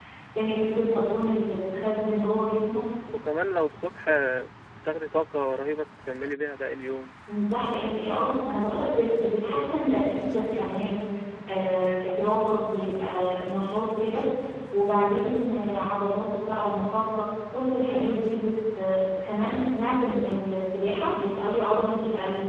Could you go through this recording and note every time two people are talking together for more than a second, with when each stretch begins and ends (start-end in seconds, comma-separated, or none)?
none